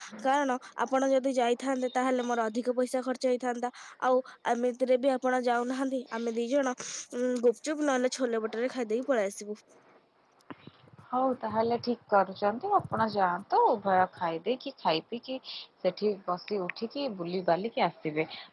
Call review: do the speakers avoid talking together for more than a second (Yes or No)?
Yes